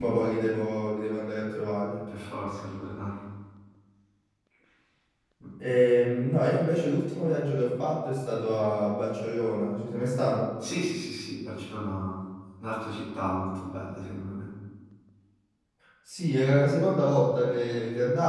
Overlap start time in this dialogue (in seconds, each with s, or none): none